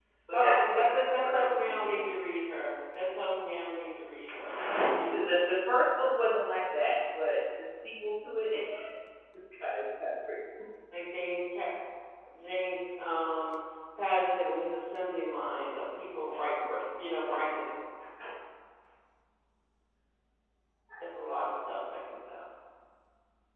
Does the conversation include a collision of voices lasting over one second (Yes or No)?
Yes